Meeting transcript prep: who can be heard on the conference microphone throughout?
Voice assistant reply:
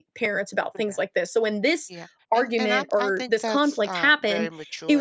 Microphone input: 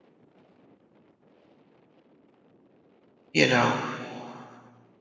user only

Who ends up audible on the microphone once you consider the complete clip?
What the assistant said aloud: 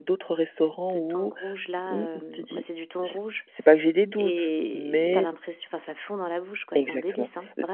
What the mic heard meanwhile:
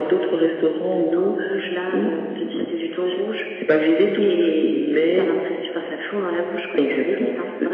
echo only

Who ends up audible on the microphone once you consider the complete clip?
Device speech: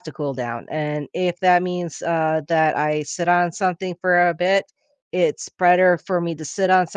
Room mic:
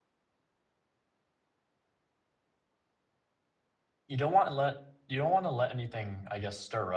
user only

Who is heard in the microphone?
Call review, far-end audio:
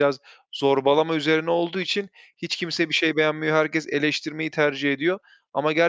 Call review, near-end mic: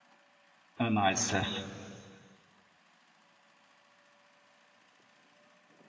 user only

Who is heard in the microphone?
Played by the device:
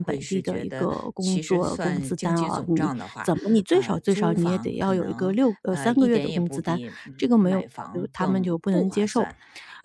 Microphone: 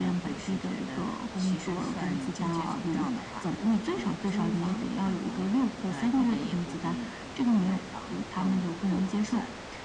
echo only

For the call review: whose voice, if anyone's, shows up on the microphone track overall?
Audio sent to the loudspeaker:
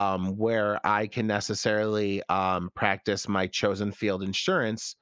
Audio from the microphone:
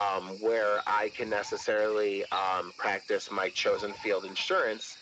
echo only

